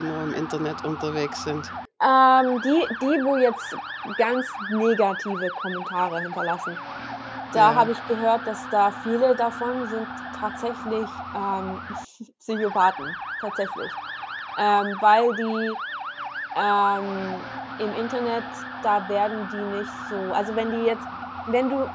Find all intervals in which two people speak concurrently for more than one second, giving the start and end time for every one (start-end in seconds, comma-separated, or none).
none